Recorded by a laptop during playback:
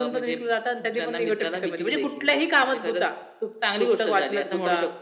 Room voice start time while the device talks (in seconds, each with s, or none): none